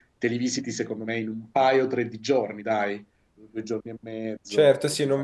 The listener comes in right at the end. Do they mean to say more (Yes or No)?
Yes